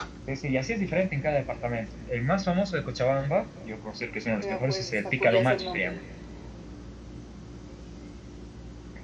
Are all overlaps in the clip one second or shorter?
No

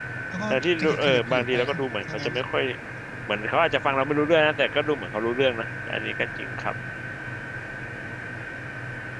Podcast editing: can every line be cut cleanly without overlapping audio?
No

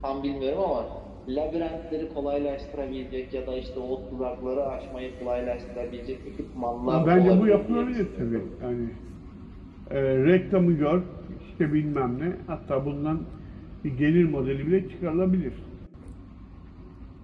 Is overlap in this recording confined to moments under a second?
No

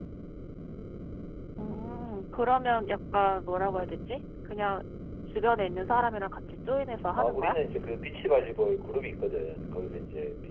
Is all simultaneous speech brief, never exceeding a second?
Yes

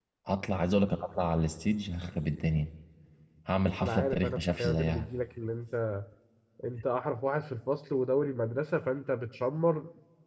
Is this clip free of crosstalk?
No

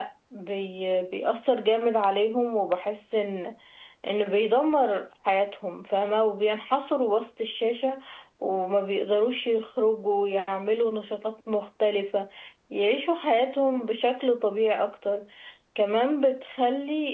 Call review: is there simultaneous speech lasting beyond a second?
No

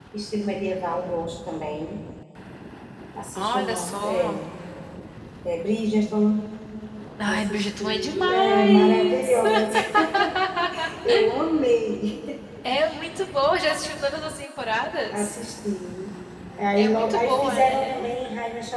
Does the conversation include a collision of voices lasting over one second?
Yes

